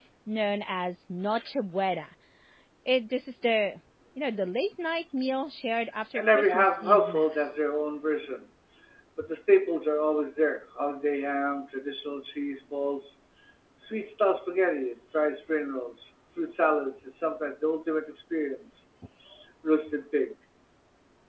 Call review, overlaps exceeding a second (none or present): present